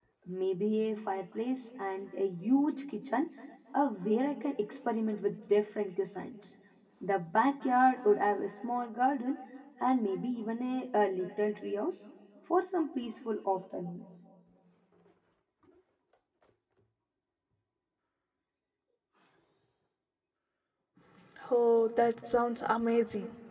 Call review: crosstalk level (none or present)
none